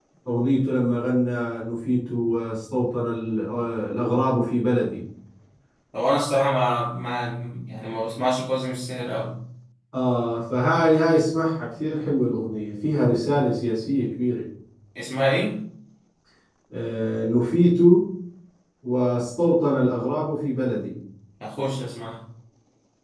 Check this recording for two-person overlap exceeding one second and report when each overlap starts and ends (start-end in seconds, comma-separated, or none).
none